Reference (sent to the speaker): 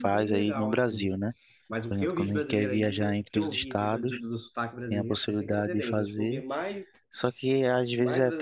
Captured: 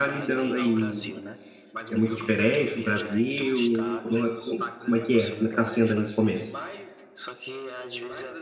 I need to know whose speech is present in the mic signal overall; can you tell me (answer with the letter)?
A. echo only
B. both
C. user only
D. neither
B